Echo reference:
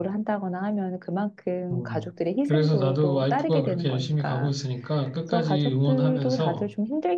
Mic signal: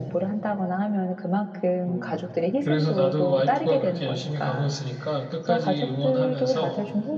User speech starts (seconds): none

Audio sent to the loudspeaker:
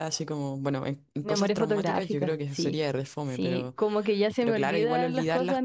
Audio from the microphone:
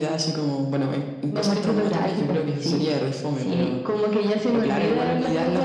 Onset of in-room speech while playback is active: none

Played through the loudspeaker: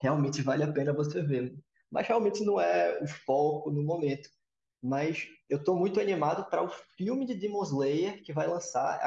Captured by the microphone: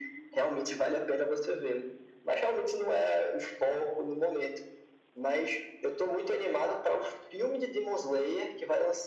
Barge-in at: none

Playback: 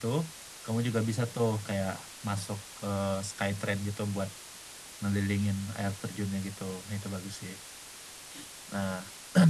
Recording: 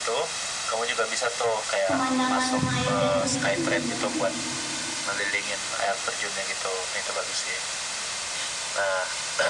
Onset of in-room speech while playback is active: 2 s

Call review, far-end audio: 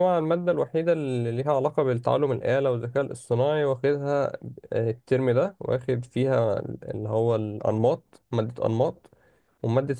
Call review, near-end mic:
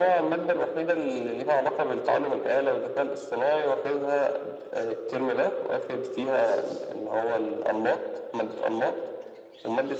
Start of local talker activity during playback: none

